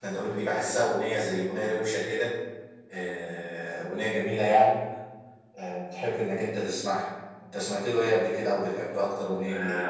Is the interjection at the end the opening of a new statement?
Yes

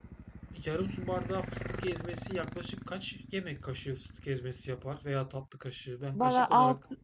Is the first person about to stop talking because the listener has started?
Yes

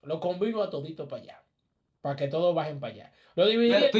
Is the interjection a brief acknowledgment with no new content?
No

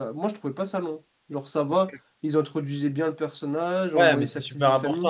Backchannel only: No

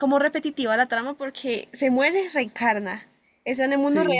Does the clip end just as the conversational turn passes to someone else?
Yes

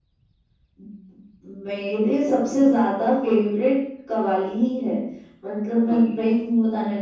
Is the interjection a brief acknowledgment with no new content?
Yes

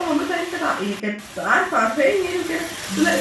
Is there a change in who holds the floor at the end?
No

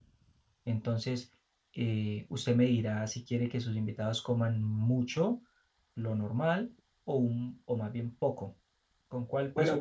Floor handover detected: Yes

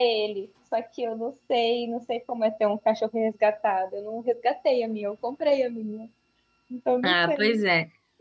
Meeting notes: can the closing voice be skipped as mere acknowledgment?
No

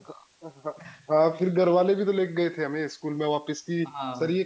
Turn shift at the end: No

